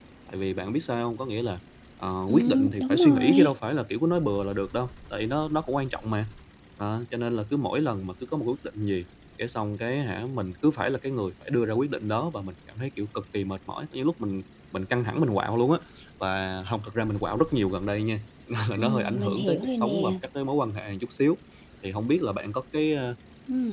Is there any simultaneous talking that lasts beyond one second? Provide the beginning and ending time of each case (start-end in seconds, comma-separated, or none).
2.3-3.5, 18.8-20.1